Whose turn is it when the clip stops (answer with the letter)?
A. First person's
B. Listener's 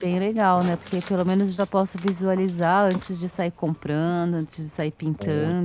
B